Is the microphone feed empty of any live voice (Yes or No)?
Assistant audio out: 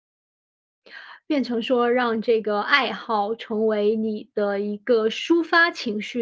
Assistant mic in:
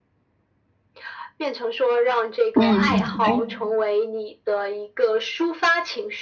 No